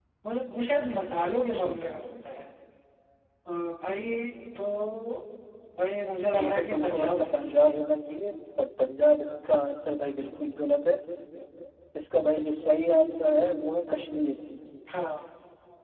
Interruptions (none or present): present